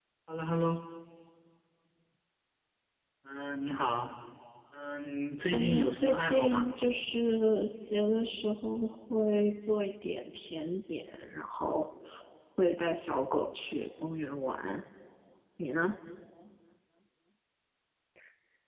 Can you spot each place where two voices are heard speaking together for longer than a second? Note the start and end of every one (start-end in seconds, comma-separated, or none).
5.5-6.7